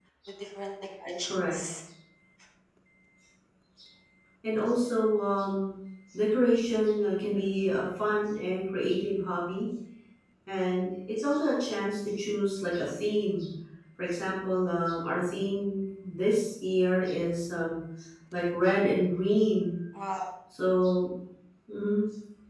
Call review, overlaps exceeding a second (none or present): none